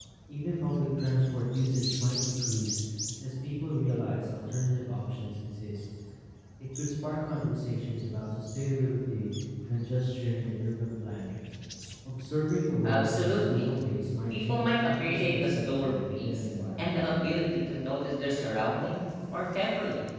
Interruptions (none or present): present